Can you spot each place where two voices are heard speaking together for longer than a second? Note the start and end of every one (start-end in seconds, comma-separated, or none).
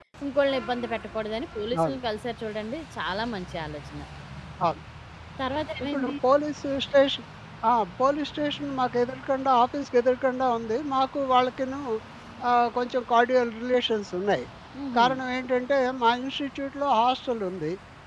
none